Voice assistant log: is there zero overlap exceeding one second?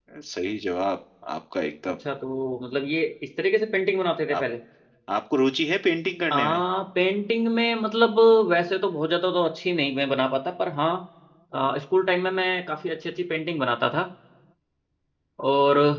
Yes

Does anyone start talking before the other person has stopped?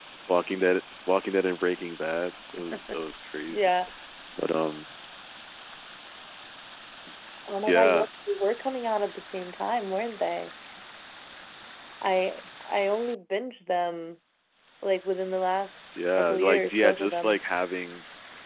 Yes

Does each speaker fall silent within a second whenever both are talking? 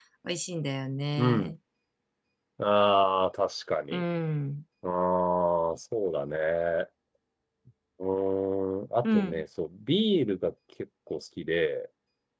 Yes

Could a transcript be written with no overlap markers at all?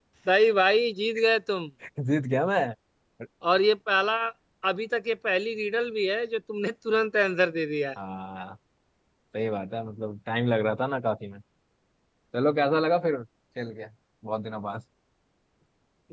Yes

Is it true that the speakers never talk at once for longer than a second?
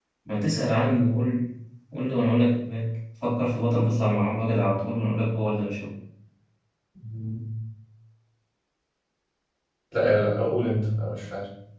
Yes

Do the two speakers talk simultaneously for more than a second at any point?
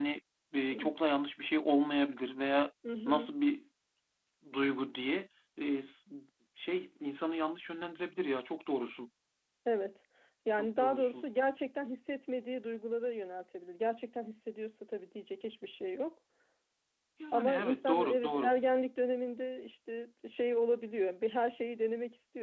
Yes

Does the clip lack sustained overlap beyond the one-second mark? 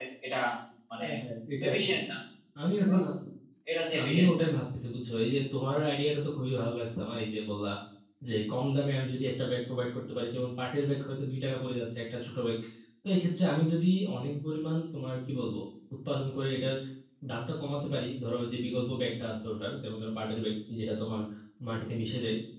Yes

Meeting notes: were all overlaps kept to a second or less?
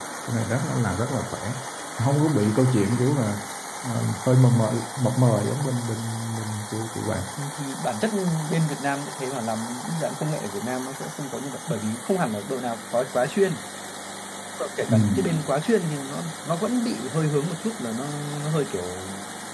Yes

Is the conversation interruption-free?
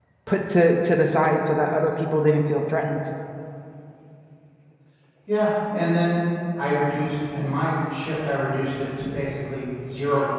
Yes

